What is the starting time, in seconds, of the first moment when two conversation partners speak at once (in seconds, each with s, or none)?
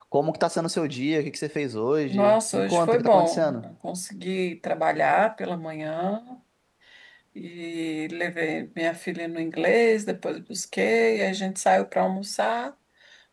2.1 s